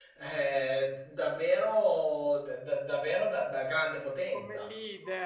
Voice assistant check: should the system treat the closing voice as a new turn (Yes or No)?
Yes